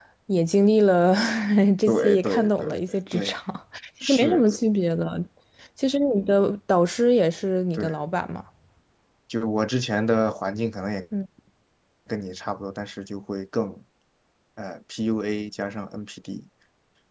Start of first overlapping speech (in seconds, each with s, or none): 1.9 s